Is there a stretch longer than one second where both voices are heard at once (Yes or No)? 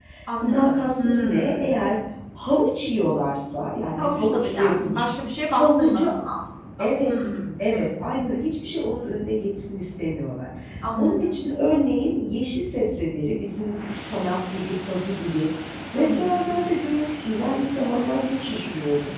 Yes